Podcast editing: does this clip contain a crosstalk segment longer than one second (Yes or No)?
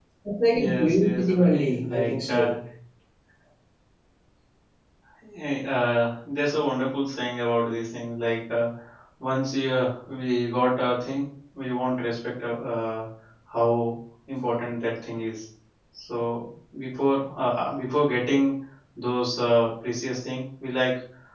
Yes